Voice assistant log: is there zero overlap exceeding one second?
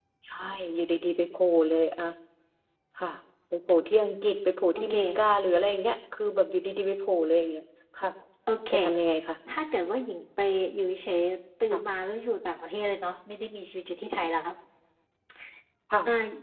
Yes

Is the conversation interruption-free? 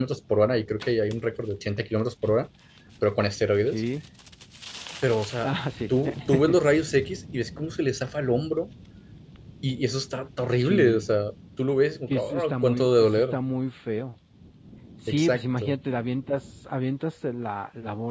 No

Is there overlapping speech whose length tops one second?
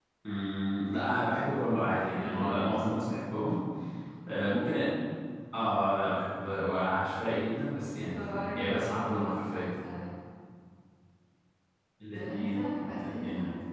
Yes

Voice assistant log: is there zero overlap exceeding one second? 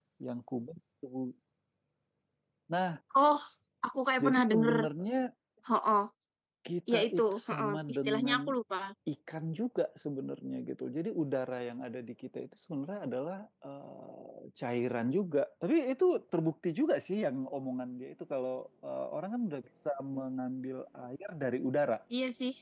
No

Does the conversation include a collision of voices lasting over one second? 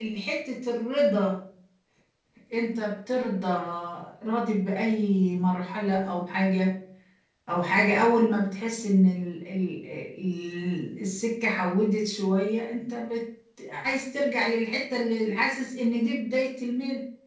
No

